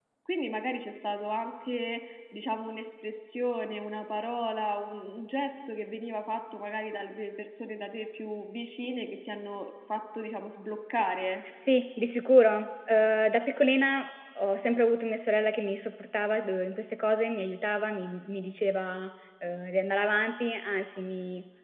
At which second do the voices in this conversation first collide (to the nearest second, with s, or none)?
none